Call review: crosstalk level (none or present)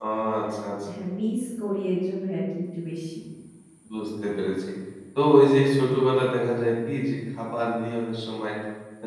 none